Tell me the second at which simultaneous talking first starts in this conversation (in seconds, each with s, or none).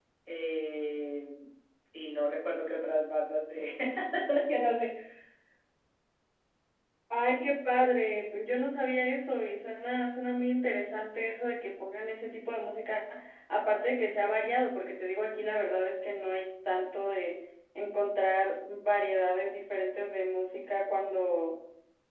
none